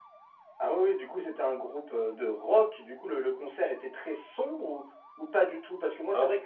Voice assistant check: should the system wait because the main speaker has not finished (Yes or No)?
Yes